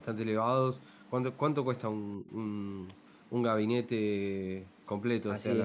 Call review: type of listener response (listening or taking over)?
taking over